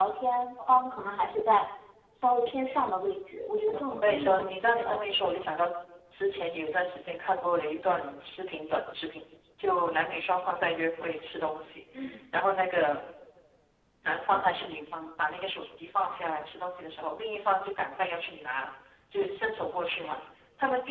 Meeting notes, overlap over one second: present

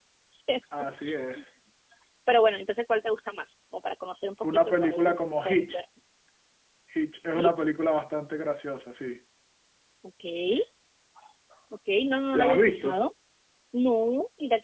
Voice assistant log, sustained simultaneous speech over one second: present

